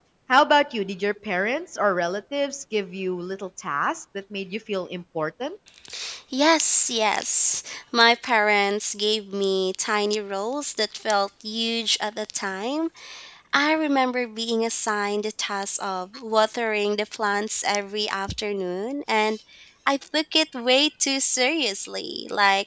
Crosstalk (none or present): none